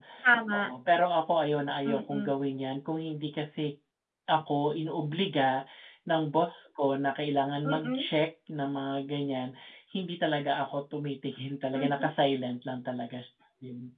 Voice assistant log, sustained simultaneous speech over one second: none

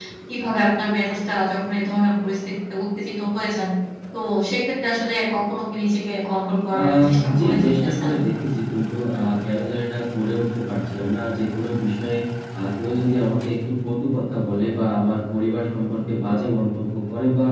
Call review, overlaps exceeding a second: present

